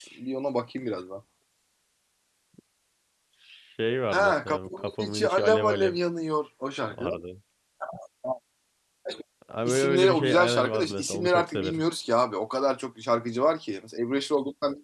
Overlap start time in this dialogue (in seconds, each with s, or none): 4.1 s